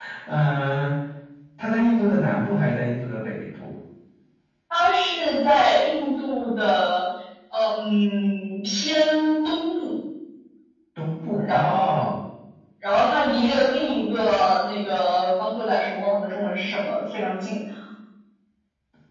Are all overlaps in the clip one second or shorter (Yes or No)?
Yes